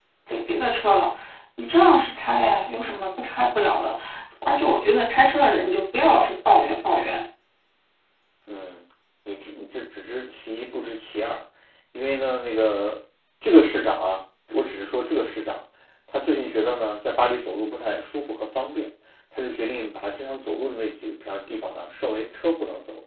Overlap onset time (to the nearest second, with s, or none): none